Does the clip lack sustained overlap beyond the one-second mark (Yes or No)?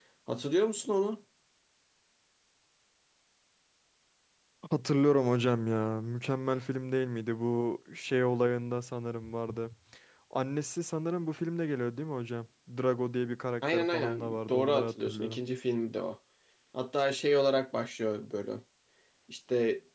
No